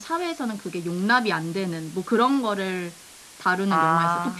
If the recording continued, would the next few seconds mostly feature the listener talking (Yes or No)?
No